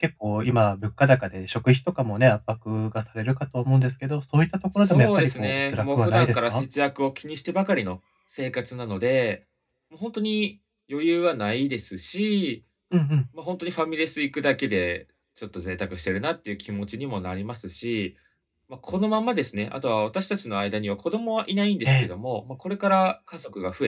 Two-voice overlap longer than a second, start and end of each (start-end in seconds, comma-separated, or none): 4.8-6.6